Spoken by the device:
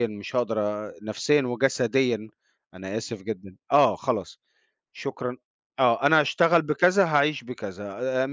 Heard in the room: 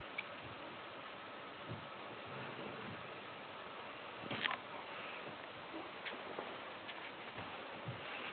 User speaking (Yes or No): No